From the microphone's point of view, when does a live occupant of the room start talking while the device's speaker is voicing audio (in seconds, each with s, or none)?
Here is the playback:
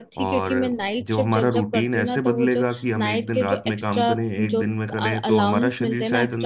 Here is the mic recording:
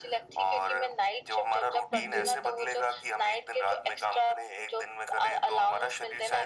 1.9 s